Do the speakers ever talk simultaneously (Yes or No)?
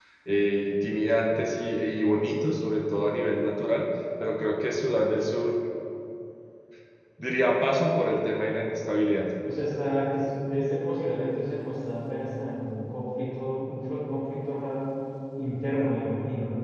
No